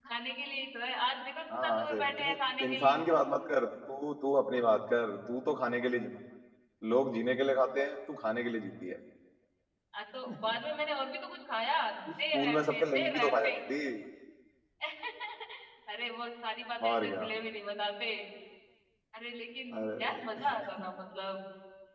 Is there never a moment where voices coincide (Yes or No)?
No